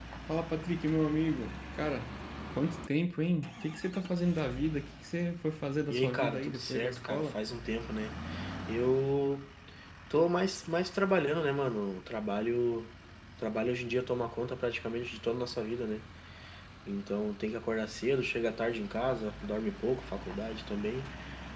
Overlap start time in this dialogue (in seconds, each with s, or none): 5.9 s